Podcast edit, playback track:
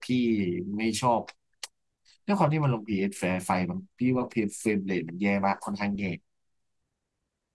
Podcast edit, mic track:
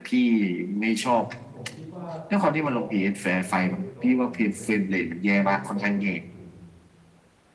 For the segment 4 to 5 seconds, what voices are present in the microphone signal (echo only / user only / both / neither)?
both